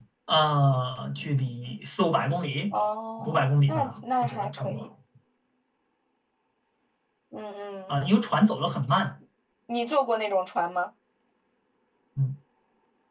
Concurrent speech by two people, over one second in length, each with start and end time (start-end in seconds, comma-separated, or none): 3.2-4.8